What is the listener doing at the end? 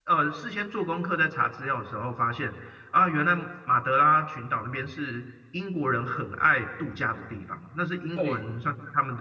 listening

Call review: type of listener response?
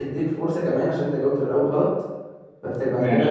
listening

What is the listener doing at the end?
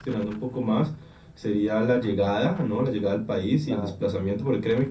listening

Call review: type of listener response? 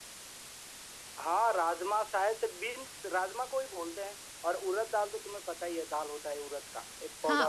taking over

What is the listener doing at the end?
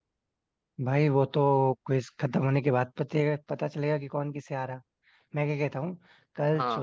listening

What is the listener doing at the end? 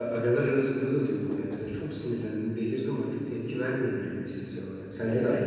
taking over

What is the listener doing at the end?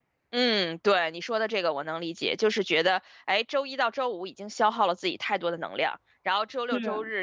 listening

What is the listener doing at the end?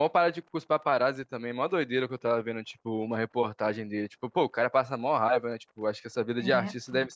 listening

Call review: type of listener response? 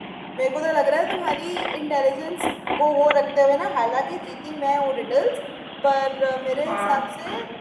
listening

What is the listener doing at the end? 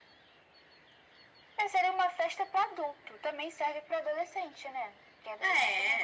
listening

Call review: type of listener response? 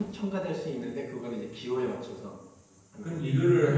taking over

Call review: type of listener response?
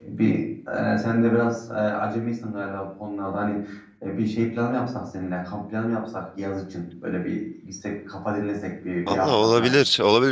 taking over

